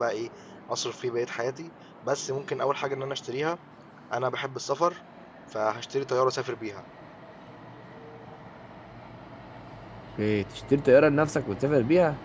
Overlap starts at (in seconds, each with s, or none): none